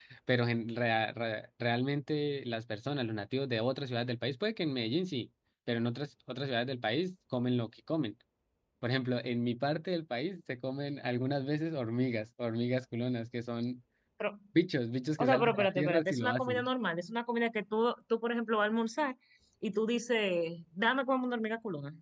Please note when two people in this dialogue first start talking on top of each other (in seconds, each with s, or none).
15.2 s